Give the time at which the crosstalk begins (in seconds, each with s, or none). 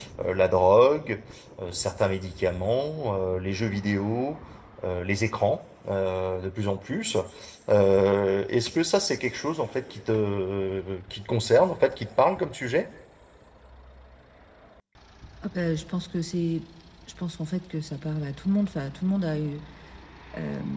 none